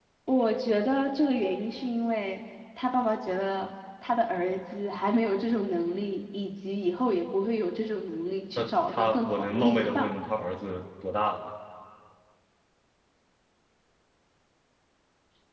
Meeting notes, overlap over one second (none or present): present